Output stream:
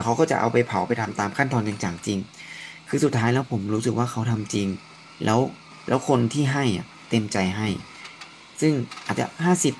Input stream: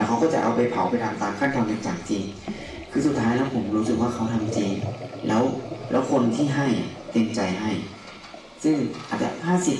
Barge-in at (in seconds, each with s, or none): none